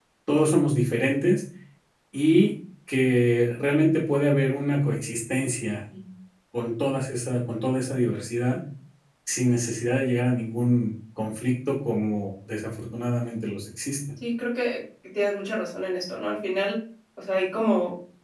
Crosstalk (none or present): none